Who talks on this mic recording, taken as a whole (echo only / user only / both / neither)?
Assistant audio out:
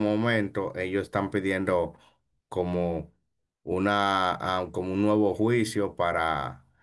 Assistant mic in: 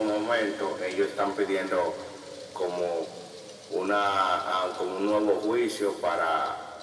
echo only